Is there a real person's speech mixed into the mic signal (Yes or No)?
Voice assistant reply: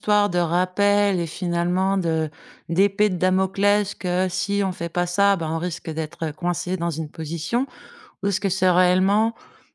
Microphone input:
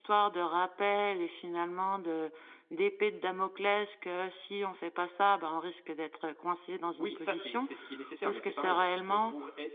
Yes